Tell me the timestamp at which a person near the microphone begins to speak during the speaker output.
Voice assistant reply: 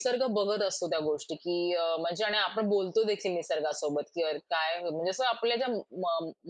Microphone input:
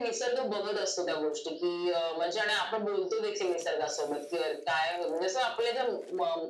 none

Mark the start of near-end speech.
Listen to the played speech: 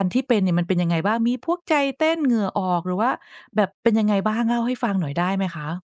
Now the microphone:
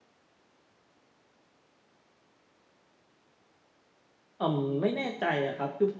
4.4 s

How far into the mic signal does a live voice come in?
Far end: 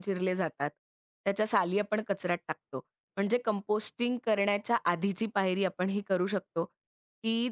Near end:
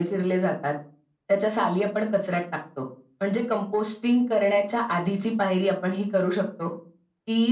none

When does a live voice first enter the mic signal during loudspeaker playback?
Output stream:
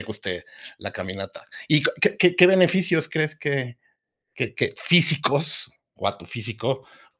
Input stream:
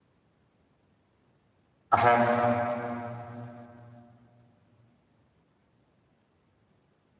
1.9 s

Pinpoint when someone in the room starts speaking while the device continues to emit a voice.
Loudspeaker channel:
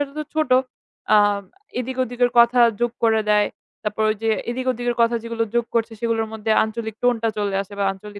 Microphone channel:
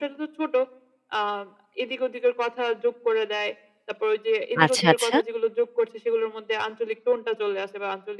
4.6 s

